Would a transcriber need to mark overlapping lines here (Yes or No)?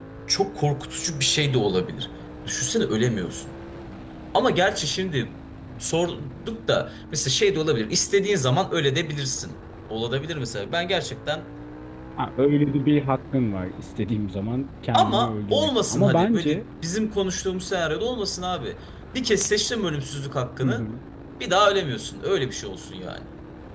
Yes